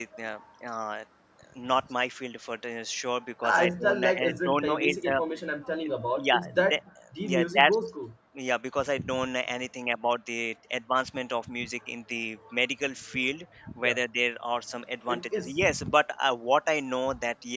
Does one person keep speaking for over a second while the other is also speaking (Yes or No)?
Yes